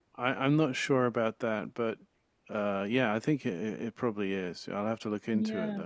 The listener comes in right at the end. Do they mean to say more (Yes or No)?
Yes